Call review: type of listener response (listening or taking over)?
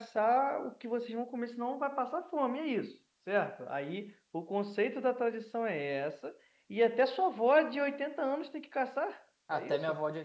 taking over